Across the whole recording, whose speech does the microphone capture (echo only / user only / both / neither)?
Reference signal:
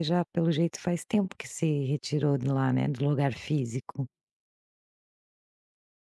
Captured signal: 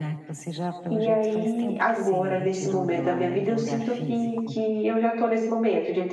both